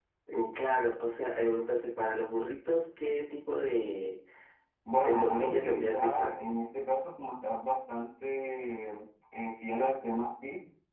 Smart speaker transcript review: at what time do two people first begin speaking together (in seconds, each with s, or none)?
5.0 s